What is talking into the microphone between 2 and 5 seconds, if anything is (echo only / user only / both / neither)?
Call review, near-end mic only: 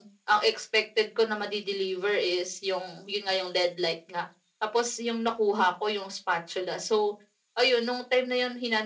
echo only